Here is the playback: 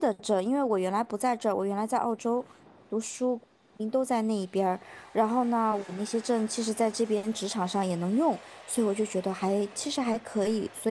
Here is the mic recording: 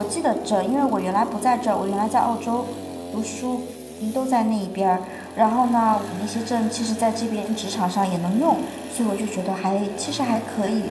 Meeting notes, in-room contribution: none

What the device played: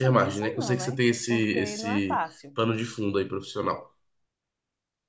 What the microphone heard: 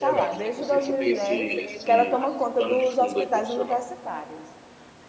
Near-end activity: present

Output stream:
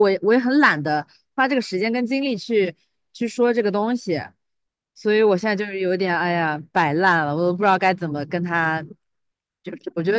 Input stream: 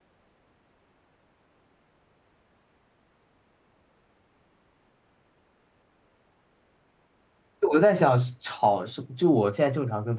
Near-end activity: present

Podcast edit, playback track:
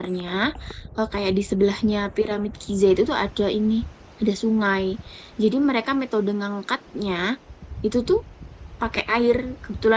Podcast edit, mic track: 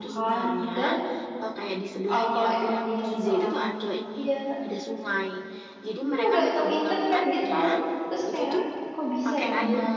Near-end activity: present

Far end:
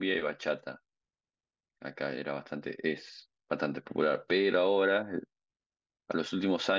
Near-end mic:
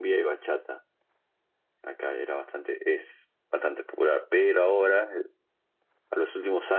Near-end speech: none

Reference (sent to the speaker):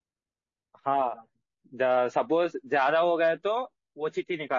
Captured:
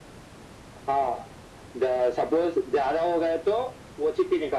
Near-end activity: none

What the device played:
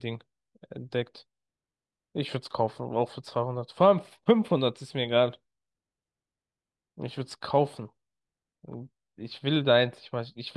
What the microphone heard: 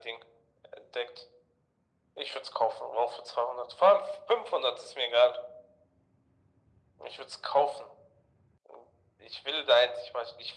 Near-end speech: none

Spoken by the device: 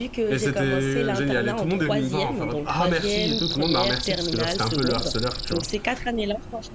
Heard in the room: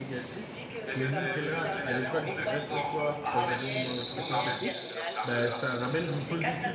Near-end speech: present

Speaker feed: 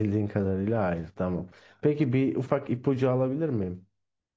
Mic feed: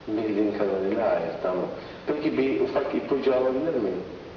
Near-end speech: none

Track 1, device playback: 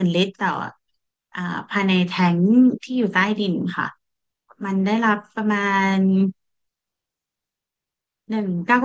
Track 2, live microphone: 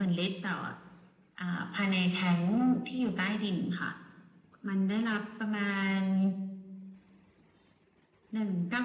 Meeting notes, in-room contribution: none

